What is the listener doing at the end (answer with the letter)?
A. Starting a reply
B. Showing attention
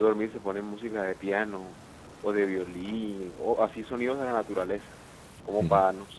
B